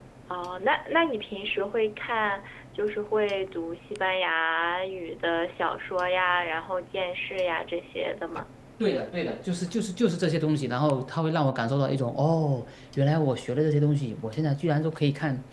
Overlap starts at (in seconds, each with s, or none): none